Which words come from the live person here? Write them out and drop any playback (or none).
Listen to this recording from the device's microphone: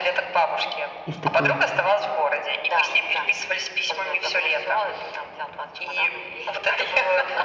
Есть такое.